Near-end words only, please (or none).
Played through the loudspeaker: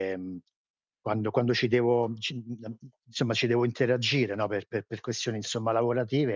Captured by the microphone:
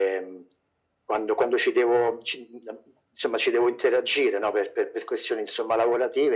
none